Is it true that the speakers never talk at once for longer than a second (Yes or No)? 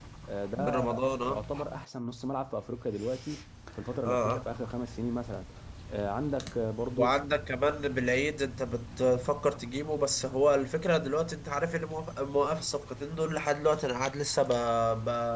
Yes